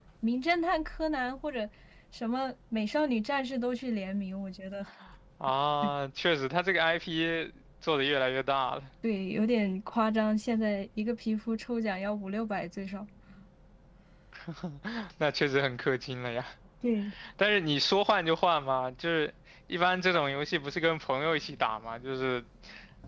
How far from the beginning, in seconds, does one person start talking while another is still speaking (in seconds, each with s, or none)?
none